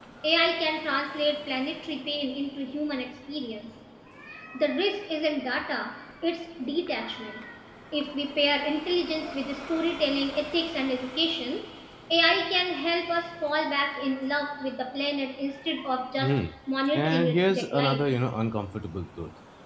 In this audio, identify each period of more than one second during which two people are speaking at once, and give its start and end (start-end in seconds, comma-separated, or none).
16.9-18.2